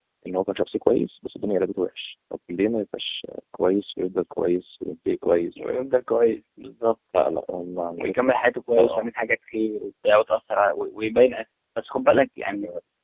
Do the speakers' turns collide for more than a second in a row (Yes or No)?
No